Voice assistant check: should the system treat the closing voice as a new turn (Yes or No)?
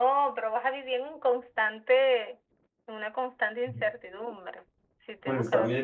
Yes